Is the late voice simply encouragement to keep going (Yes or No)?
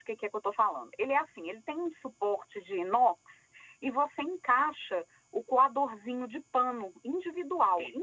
Yes